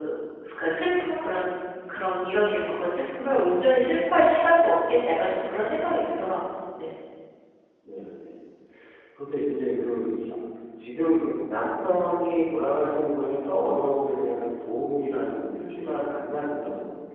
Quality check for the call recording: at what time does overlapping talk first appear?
none

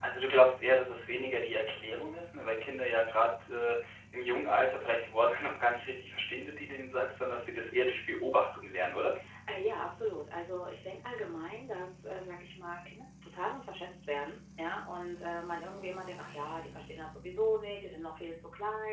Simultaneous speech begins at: none

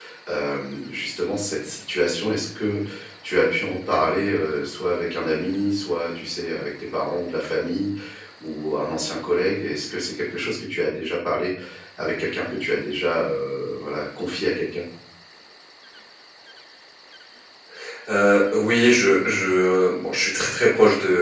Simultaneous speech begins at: none

